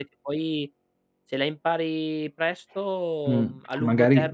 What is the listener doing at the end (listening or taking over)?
taking over